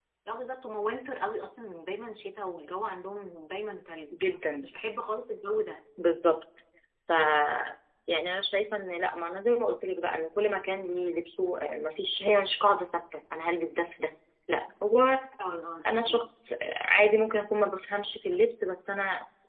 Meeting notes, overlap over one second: none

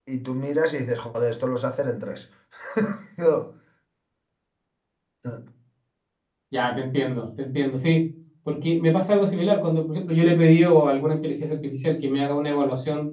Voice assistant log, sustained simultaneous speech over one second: none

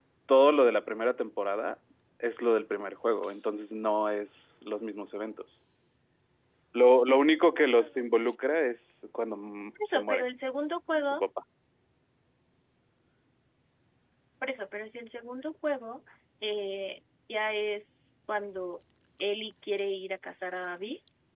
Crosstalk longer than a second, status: none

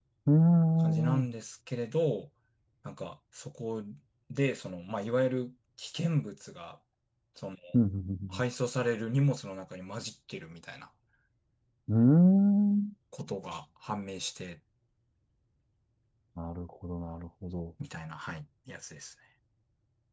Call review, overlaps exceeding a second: none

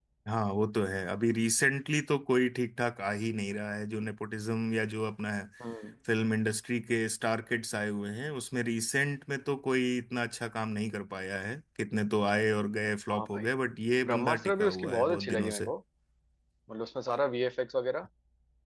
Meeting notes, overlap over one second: present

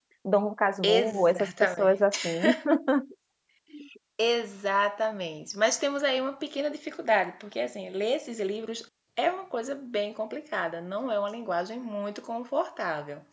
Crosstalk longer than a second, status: present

